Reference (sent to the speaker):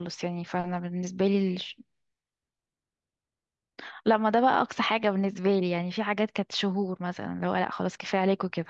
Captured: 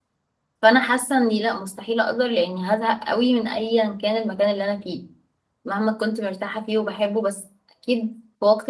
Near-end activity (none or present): present